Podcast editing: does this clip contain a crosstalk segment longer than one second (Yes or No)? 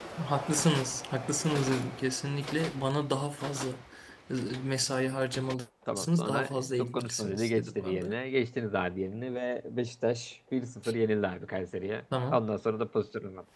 Yes